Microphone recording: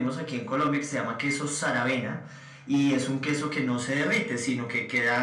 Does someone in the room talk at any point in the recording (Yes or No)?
No